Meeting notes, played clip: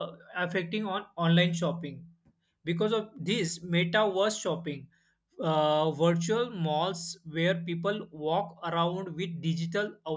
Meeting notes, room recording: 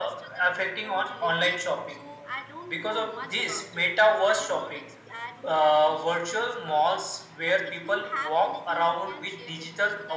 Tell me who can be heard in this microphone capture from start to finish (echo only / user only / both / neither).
both